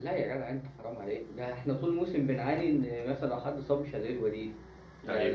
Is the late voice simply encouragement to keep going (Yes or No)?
No